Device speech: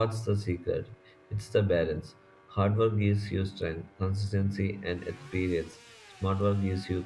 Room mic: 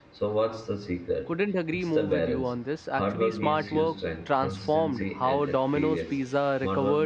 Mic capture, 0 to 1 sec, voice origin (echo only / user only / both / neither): echo only